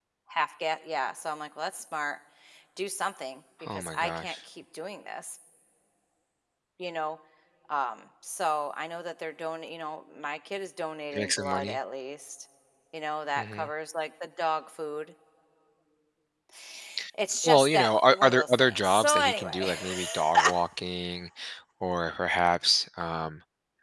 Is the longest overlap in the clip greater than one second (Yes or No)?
Yes